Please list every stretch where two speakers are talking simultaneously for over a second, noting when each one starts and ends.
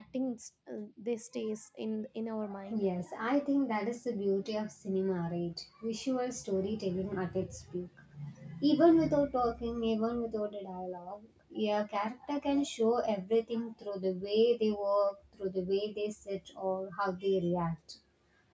none

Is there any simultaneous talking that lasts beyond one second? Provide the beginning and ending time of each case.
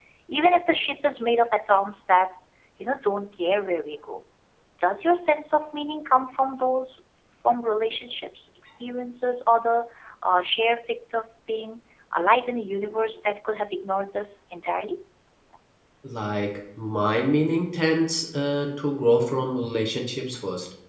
none

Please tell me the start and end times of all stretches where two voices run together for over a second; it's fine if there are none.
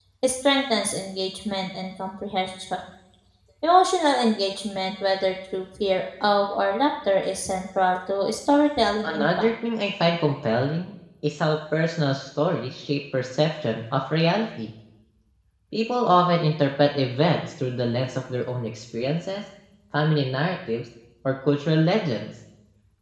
none

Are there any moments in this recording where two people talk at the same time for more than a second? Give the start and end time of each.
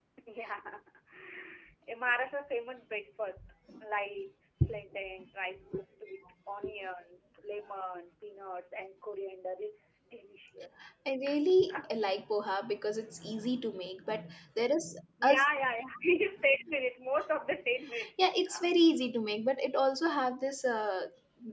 none

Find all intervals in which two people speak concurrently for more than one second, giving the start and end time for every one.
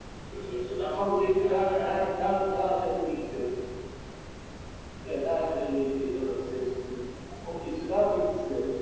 1.0-2.4

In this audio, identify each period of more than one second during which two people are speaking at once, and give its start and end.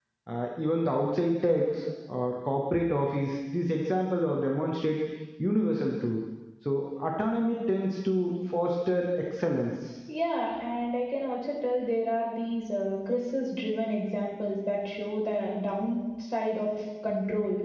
none

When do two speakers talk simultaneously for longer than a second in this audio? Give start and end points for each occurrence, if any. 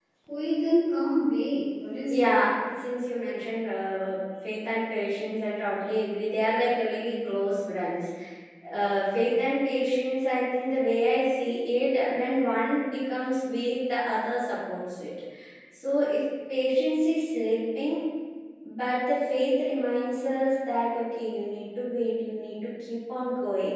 none

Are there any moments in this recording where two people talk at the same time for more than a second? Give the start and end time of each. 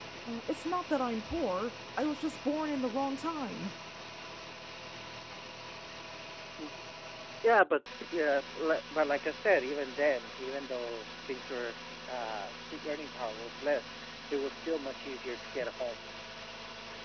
none

